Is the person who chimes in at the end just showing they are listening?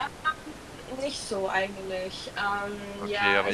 No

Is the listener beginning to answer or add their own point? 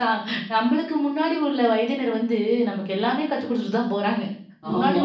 No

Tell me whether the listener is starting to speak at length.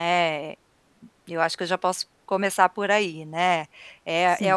No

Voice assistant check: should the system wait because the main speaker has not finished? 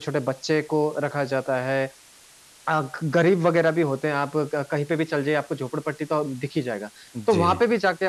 Yes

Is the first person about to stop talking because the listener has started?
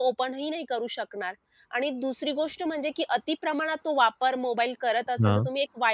No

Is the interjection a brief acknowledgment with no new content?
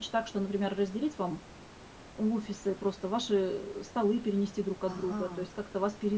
Yes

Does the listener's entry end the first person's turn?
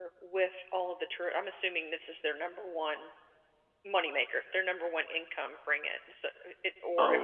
Yes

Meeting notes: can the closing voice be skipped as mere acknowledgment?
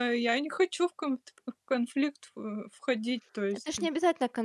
No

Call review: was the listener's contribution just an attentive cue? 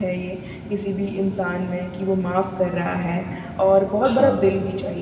Yes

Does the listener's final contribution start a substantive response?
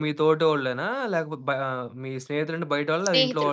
Yes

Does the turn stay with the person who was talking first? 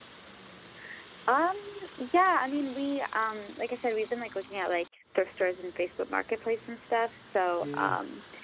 Yes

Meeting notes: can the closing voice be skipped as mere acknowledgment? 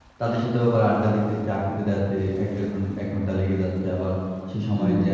Yes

